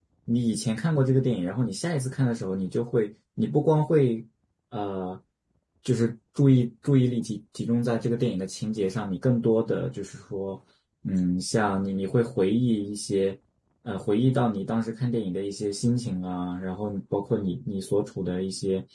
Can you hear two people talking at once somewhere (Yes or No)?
No